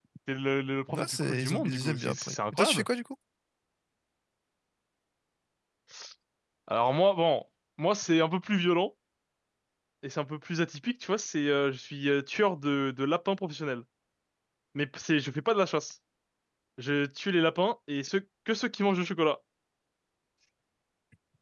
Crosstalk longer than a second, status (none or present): present